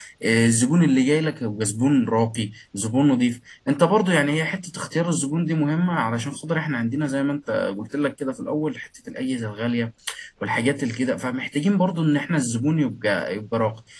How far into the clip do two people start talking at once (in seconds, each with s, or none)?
none